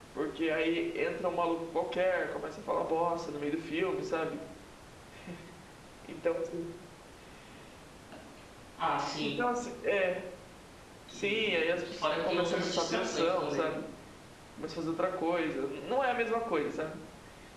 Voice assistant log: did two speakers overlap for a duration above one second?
Yes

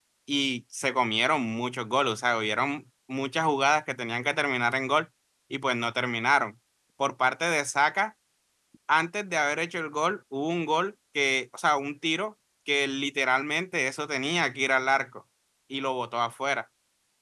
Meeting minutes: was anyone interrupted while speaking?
No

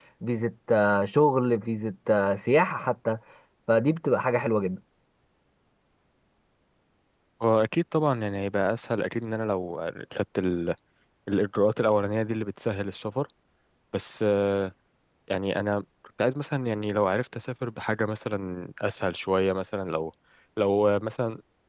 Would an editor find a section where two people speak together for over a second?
No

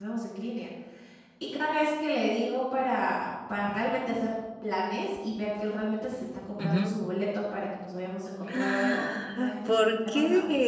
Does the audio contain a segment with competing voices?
Yes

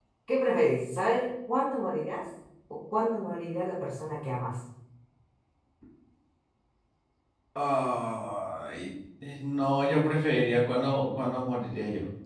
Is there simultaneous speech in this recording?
No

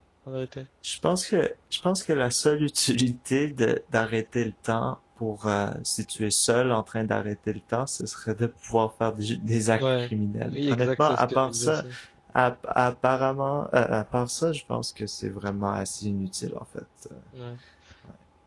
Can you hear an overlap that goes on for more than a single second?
Yes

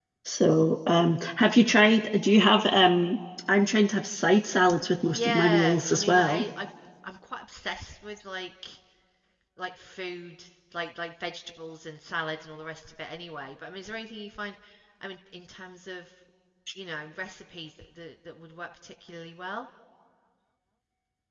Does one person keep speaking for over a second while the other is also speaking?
Yes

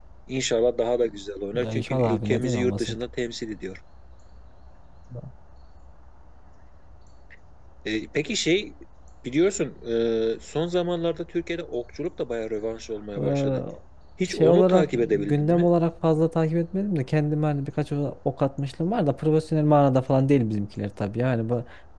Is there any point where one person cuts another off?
Yes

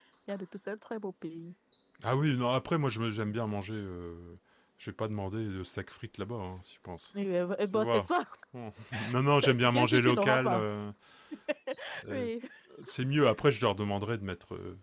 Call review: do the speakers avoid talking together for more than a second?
No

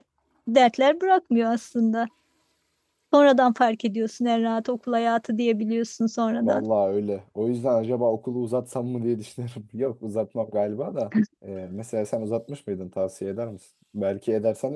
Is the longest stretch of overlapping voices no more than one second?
Yes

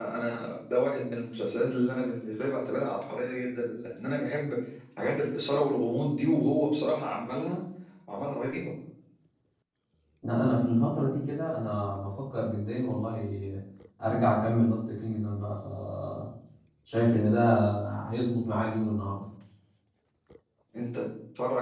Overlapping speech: No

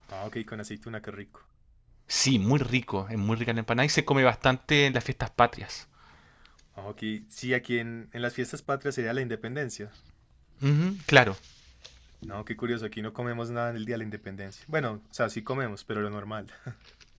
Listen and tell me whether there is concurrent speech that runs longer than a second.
No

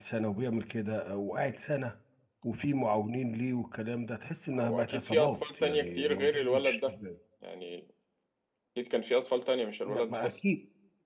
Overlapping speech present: Yes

